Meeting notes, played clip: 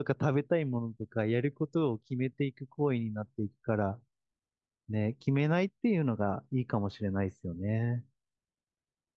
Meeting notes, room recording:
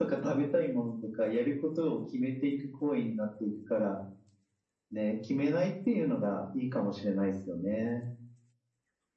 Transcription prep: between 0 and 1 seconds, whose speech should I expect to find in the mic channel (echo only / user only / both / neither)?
echo only